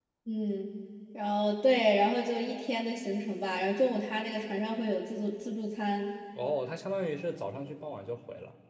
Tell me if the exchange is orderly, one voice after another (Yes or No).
Yes